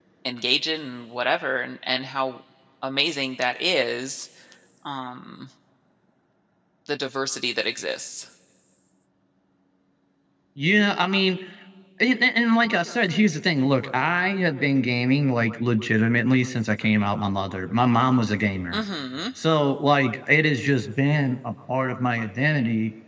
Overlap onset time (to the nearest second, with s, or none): none